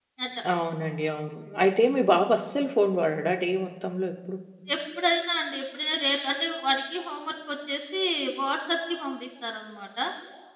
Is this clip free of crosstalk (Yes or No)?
Yes